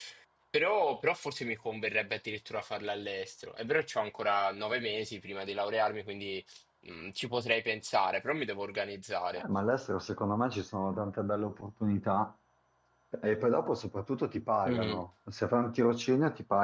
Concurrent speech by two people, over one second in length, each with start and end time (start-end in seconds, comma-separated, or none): none